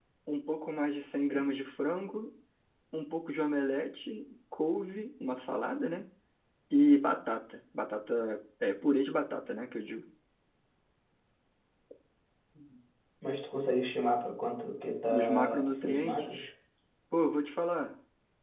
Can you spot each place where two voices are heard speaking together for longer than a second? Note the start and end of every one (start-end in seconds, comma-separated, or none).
15.1-16.5